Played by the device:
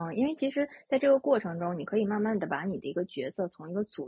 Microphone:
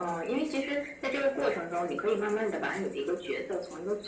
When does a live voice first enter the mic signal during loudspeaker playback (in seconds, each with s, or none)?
none